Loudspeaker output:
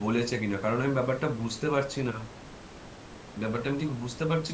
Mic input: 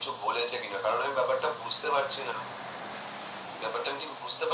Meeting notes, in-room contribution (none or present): none